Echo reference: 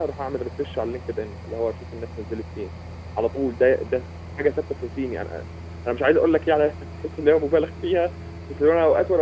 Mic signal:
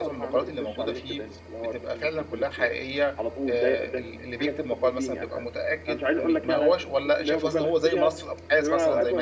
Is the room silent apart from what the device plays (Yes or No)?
No